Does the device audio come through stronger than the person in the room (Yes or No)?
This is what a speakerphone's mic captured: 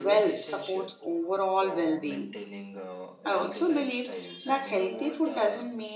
No